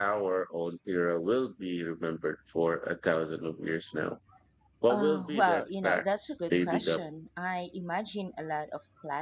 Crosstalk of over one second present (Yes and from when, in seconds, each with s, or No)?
Yes, from 4.9 s